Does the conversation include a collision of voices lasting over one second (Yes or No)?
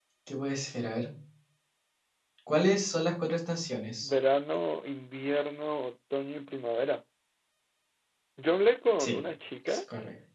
No